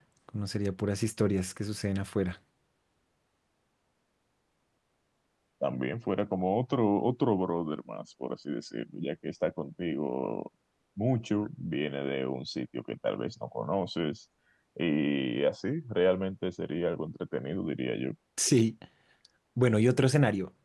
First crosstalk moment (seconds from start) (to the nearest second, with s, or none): none